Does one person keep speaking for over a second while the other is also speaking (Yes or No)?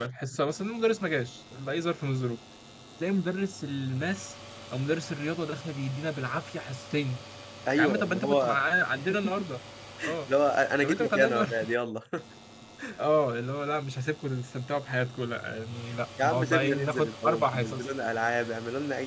Yes